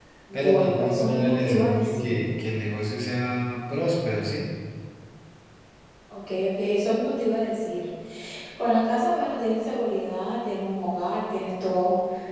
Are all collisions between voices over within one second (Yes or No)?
No